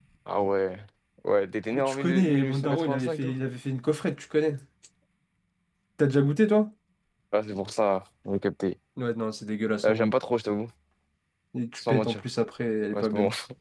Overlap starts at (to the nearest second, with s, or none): 2 s